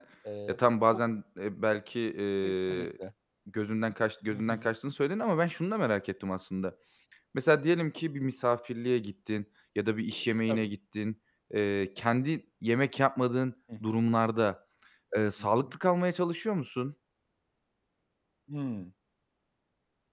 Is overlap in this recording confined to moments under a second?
Yes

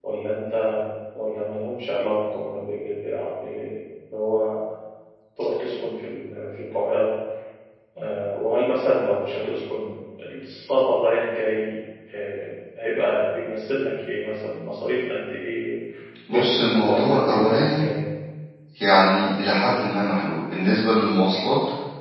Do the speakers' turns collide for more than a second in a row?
Yes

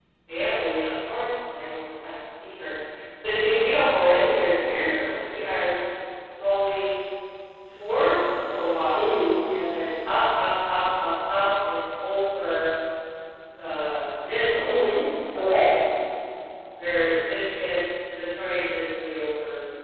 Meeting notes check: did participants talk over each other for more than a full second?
No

